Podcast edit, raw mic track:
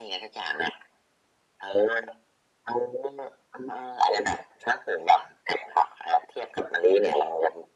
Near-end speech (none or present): none